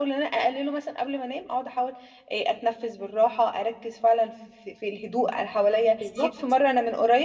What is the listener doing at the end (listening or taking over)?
listening